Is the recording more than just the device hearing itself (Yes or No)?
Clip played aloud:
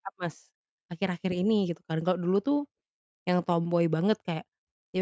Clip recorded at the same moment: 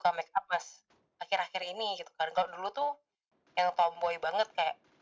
No